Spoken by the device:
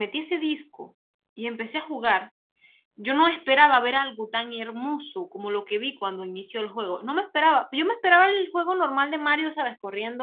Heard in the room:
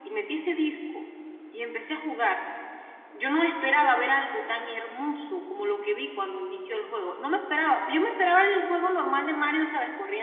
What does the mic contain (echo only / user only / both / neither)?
echo only